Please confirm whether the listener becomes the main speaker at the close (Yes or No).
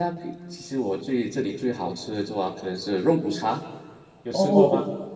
Yes